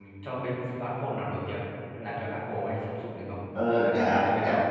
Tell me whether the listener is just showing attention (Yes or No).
No